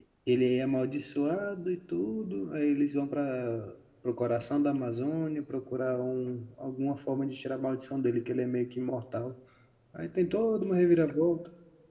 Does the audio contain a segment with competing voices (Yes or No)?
No